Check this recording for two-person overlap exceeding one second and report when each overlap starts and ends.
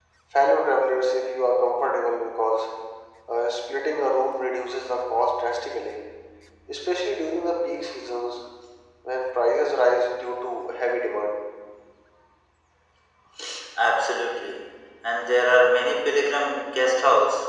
none

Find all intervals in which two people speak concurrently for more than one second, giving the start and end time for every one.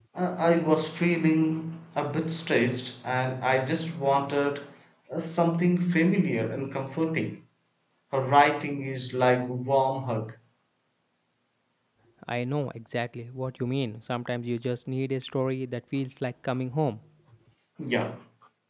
none

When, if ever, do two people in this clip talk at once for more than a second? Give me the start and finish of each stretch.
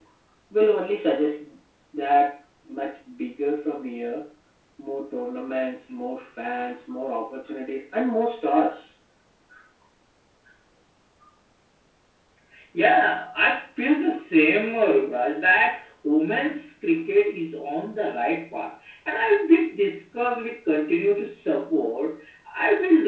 none

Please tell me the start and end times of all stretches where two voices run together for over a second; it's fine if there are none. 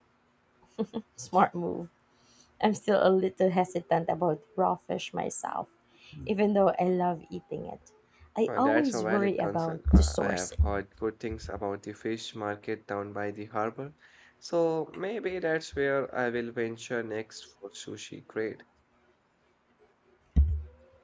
8.5-10.7

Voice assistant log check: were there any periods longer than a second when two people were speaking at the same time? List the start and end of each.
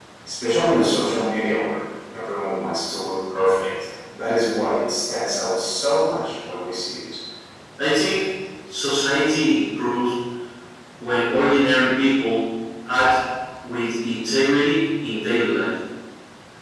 none

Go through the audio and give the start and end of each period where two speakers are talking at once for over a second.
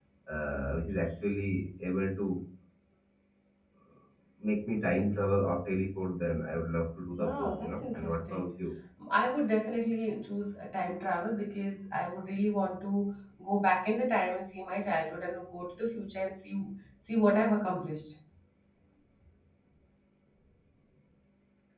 7.2-8.5

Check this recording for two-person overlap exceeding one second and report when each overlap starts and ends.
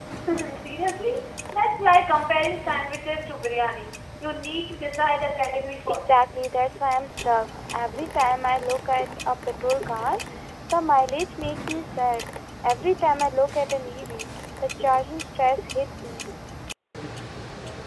none

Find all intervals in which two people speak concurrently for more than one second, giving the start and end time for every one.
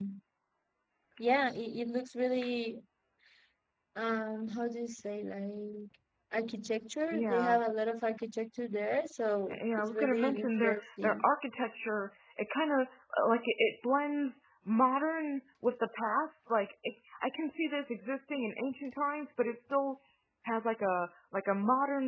9.8-11.3

